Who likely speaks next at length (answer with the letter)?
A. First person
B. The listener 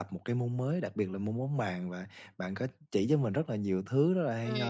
A